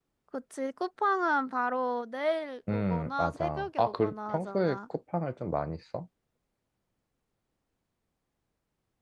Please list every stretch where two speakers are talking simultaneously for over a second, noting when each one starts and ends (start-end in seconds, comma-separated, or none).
2.7-4.8